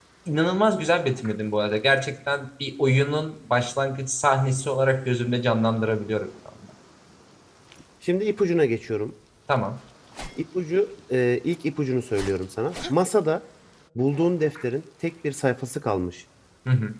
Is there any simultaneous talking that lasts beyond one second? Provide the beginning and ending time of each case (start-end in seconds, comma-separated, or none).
none